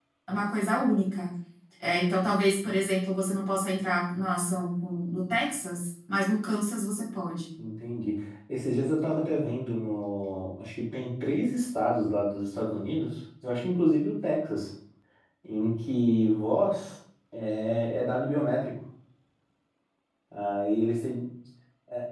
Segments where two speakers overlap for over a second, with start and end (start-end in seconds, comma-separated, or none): none